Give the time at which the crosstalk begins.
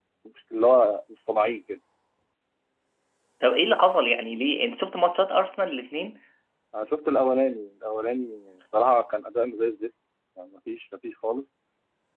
none

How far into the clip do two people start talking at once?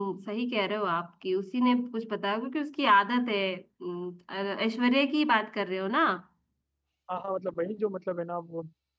none

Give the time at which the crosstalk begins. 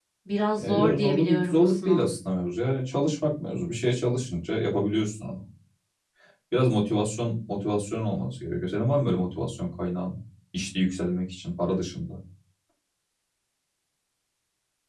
1 s

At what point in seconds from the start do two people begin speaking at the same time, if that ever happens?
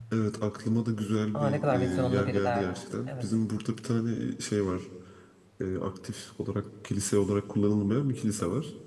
1 s

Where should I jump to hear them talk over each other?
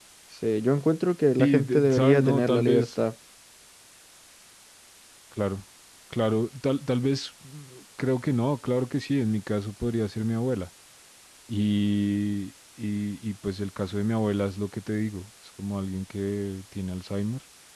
1 s

